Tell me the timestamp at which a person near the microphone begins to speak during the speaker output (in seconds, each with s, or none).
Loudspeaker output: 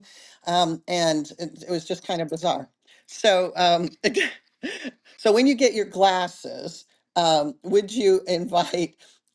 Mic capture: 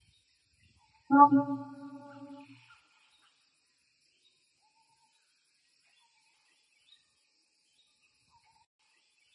1.1 s